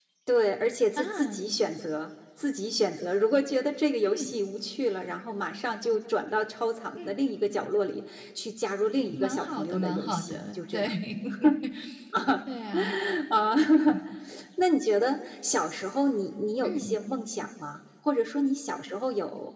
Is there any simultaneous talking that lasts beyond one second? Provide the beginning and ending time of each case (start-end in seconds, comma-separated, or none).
9.2-10.9